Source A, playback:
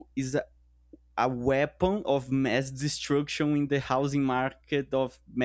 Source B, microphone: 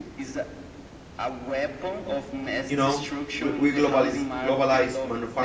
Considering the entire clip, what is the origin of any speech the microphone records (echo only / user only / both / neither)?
both